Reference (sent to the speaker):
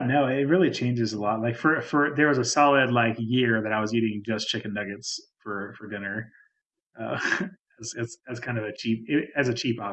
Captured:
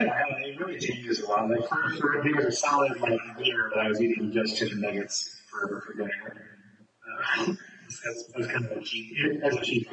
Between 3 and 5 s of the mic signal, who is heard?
echo only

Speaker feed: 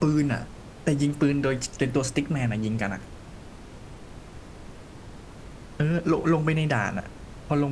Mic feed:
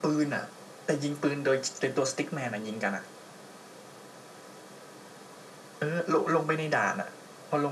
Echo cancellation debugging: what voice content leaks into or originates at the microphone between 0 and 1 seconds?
echo only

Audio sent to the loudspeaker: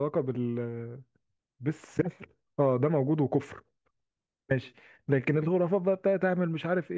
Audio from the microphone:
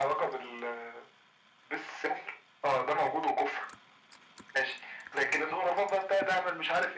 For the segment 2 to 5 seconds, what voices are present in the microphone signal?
echo only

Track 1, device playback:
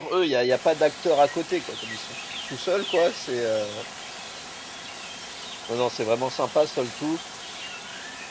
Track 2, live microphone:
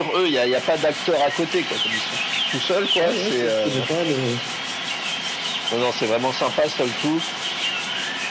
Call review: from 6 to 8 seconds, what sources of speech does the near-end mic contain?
echo only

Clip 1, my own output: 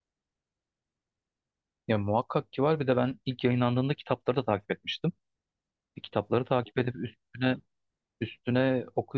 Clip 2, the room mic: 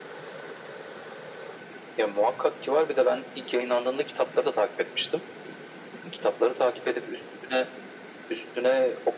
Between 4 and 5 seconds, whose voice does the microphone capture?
echo only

